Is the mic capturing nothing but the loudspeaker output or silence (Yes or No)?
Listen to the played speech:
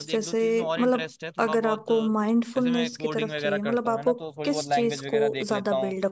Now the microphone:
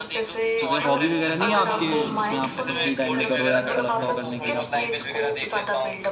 No